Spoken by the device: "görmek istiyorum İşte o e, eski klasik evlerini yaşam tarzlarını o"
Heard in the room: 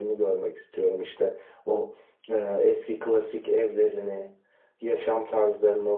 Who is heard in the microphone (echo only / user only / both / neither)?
echo only